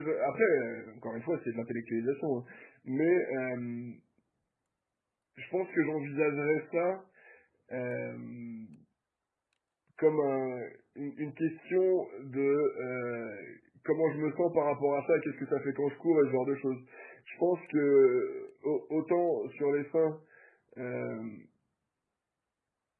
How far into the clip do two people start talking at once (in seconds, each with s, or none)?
none